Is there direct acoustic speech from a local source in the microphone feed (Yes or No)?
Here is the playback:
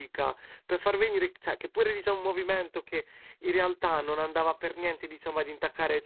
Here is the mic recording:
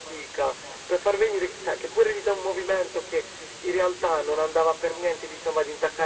No